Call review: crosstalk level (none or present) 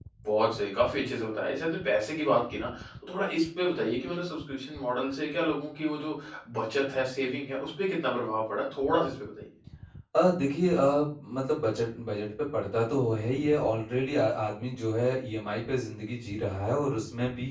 none